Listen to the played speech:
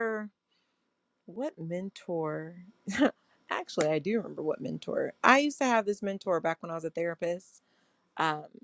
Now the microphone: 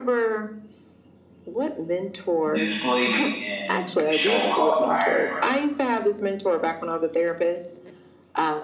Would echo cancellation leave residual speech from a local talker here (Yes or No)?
Yes